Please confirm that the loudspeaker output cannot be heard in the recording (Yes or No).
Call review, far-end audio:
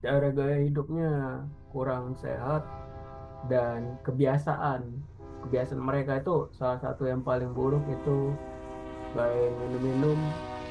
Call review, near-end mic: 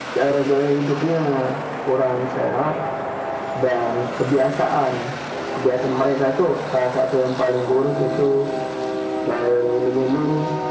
No